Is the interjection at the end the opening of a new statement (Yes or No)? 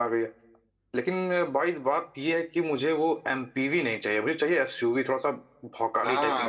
Yes